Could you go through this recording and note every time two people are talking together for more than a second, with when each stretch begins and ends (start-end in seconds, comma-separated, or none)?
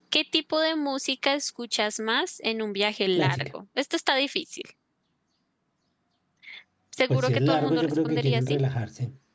7.1-8.6